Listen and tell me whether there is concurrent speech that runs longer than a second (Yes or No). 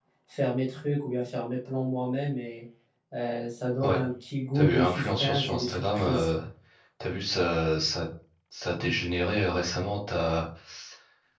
Yes